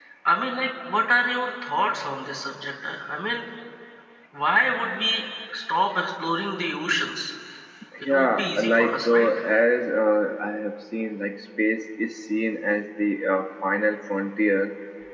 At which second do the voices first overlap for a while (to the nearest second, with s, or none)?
8 s